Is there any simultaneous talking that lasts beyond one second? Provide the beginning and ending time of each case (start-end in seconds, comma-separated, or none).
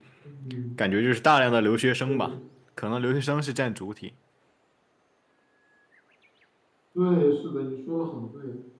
none